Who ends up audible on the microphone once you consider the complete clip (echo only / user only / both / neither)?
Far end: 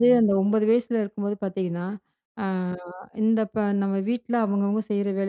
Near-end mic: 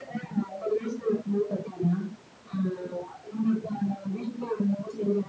echo only